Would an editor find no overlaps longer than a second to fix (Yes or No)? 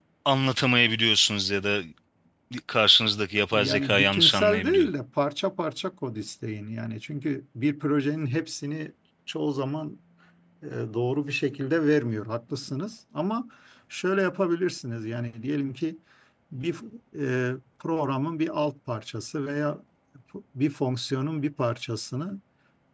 No